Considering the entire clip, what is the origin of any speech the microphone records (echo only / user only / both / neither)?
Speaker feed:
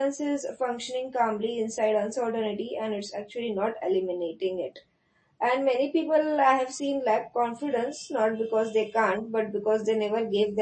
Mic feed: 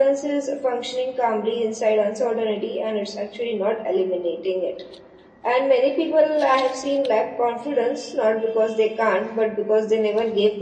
echo only